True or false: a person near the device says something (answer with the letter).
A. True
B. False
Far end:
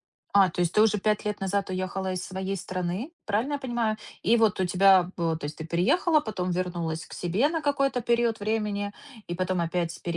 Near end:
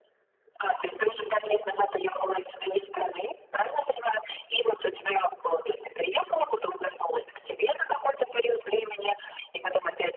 B